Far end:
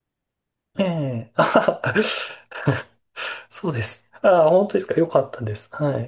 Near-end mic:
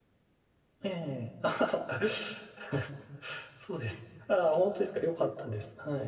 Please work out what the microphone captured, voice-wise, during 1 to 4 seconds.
echo only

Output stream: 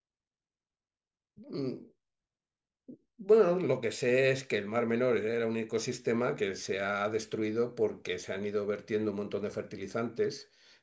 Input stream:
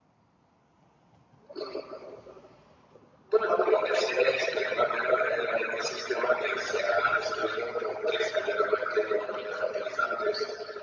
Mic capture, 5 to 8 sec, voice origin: echo only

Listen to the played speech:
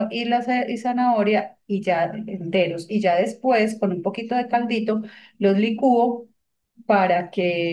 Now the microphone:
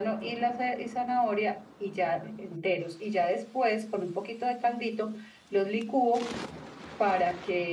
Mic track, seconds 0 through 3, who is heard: echo only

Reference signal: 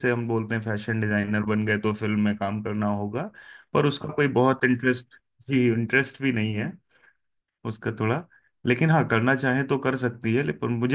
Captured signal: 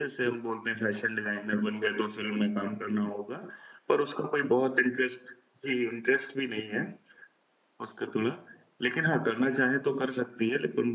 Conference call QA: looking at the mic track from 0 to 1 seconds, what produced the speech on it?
echo only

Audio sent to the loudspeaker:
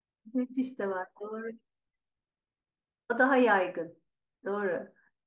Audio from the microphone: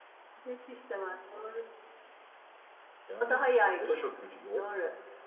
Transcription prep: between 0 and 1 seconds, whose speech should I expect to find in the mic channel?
echo only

